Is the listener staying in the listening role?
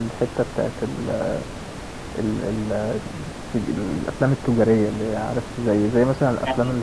Yes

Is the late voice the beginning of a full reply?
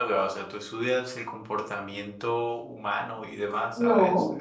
Yes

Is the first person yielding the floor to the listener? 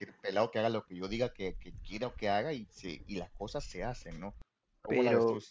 Yes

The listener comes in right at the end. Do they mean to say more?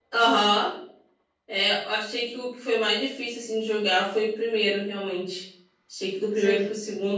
No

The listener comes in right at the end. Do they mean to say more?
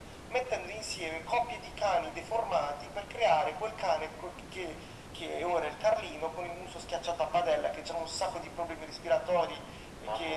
No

